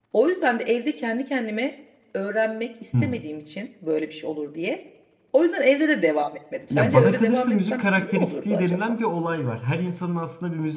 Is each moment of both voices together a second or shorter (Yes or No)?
No